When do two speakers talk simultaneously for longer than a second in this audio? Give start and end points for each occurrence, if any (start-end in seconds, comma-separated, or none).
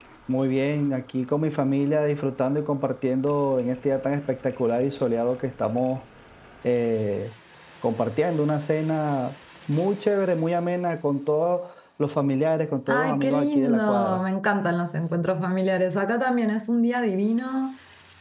12.9-14.2